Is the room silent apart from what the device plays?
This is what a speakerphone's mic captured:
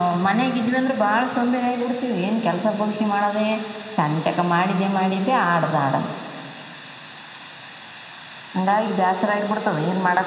Yes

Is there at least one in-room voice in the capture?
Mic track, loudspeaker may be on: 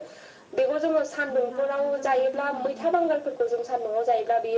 Yes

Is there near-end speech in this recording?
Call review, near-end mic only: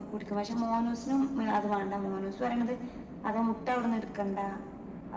No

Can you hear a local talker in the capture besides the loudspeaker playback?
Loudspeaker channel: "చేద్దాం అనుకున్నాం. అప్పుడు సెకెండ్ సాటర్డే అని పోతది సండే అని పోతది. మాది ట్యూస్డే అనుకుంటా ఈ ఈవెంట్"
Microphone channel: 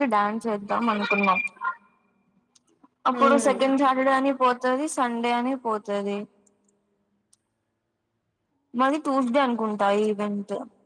Yes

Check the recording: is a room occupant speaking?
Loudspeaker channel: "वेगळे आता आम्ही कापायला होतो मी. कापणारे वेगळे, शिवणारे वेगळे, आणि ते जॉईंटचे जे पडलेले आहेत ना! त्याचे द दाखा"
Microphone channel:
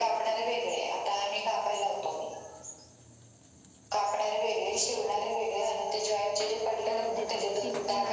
Yes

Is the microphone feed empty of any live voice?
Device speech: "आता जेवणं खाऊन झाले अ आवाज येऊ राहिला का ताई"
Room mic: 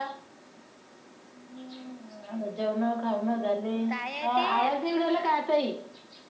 No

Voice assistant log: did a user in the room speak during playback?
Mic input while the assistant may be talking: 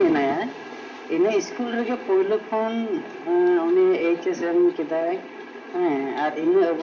No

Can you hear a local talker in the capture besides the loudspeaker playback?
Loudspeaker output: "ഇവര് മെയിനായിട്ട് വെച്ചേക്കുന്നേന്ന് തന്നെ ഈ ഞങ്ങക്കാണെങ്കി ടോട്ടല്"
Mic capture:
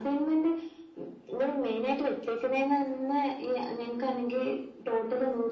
No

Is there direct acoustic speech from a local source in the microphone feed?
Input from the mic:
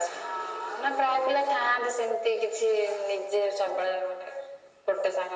No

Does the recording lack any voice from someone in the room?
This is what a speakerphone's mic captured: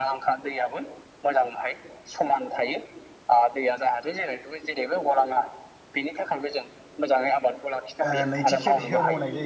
No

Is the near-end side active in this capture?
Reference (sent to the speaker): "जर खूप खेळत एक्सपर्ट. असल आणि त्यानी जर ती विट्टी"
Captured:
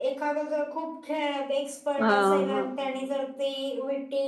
Yes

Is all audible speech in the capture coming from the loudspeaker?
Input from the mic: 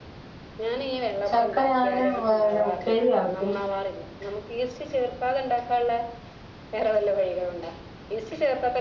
No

